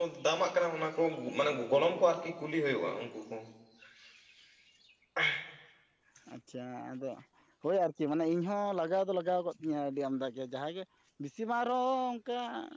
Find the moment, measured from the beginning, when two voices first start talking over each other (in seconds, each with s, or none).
none